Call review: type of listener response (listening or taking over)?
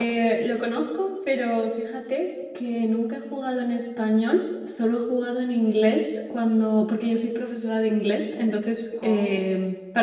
listening